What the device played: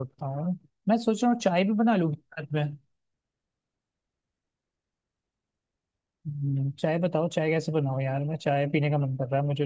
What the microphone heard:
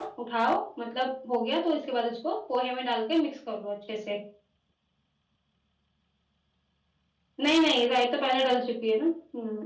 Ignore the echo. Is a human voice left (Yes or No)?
Yes